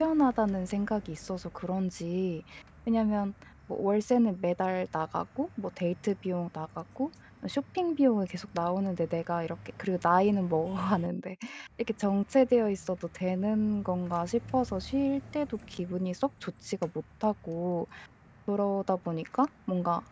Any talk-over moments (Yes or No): No